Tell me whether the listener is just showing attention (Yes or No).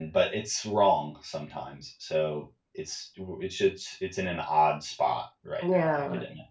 No